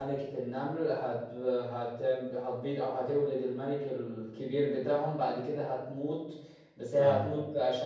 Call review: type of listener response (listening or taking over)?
listening